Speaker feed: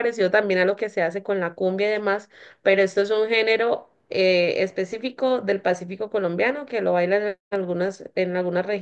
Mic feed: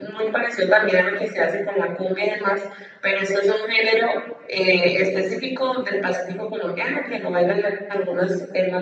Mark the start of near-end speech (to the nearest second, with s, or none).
none